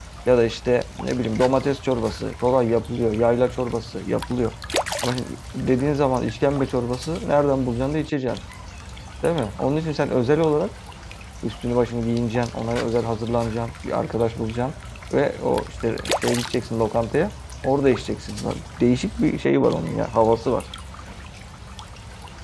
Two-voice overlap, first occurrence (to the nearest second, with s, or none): none